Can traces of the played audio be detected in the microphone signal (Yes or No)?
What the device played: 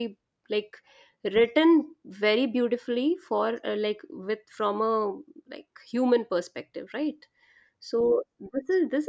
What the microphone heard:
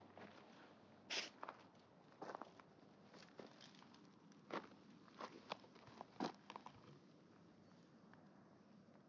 No